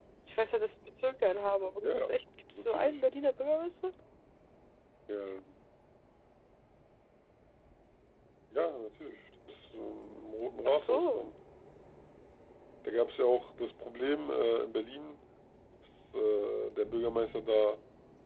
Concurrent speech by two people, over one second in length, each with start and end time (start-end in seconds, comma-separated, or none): none